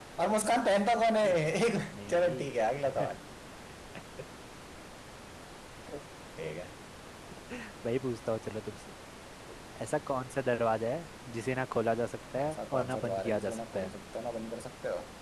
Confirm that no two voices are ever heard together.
No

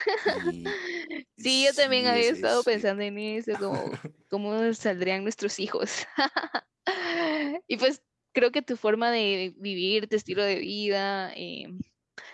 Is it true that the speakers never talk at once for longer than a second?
No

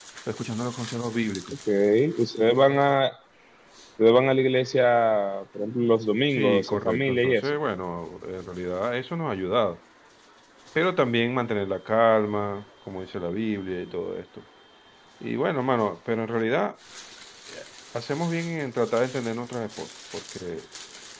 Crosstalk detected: Yes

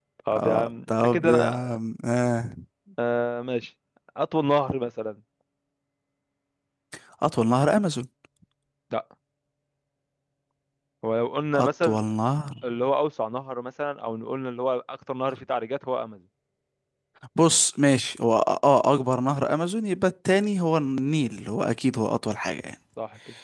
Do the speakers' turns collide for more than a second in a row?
Yes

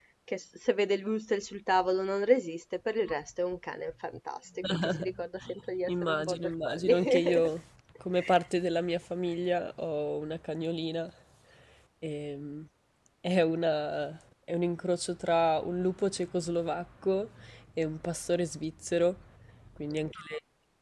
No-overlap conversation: No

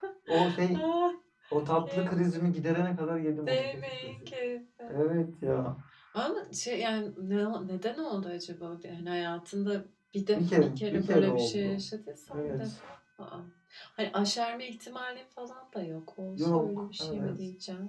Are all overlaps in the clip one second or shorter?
No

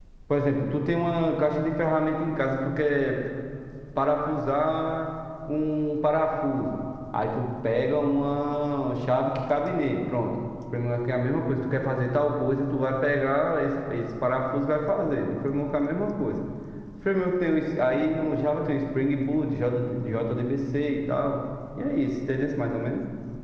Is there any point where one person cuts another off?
No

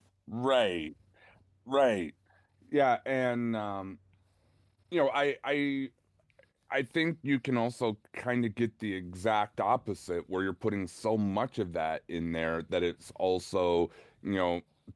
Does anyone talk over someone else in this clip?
No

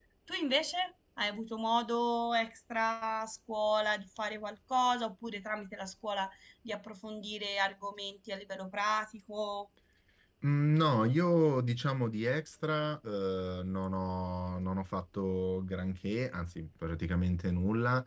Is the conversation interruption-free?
Yes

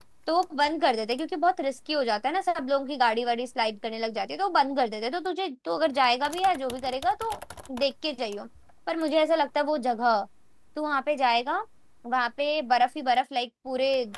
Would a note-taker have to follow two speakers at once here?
No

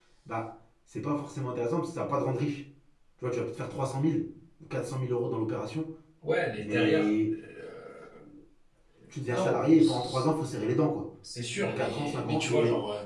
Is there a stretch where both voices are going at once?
Yes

